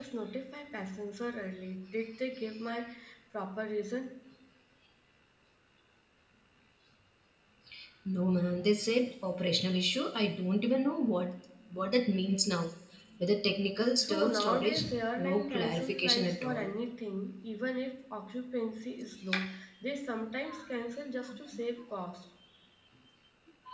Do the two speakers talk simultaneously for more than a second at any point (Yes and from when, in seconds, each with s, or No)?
Yes, from 14.0 s